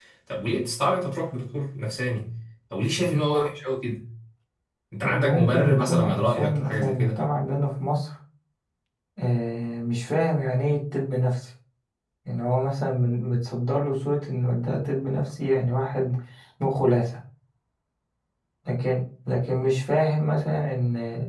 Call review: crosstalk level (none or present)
present